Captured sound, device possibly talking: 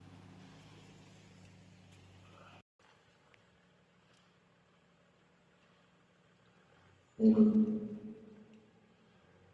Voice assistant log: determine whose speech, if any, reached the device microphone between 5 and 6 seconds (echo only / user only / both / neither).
neither